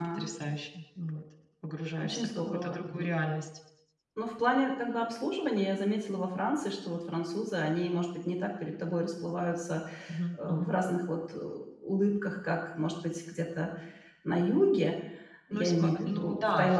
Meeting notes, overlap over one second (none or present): present